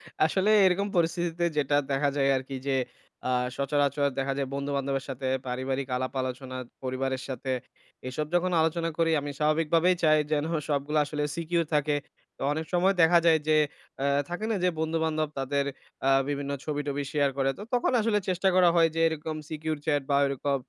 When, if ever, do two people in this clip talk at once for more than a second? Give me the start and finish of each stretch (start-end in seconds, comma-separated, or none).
none